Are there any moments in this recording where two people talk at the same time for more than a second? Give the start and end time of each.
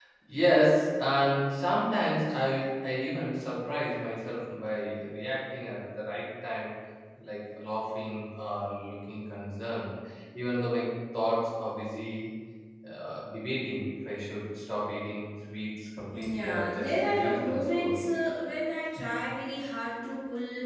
16.2-18.0

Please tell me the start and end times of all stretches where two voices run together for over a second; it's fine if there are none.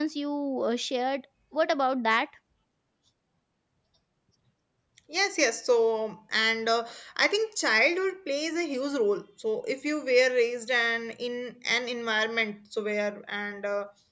none

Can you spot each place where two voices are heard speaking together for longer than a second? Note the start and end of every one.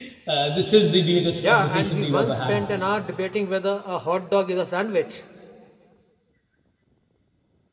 1.4-2.6

